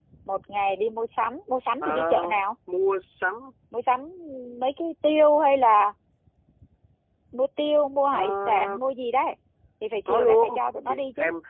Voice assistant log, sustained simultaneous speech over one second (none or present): present